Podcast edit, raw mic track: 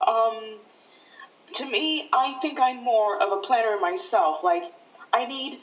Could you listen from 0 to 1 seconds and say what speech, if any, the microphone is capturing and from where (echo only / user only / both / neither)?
echo only